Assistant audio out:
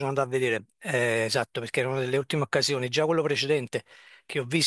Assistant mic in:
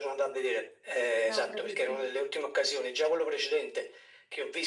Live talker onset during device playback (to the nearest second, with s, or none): 1 s